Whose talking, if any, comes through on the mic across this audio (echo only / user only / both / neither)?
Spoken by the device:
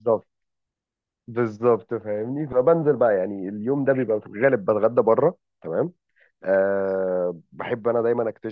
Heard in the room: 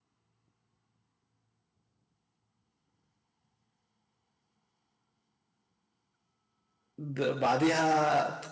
user only